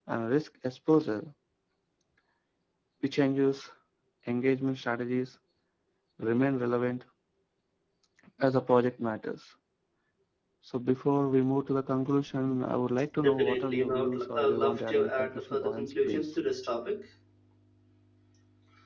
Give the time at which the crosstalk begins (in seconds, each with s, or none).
13.2 s